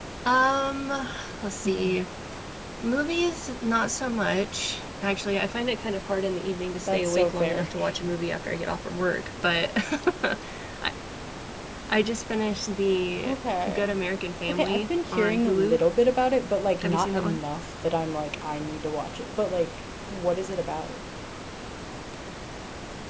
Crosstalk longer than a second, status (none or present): present